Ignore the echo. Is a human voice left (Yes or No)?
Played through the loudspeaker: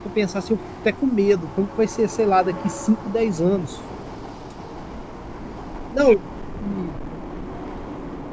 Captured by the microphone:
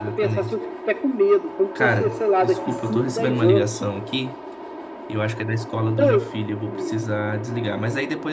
Yes